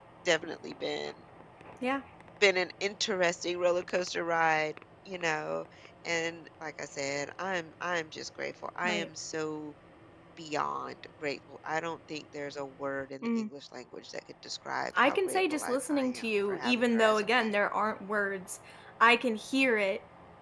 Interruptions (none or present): present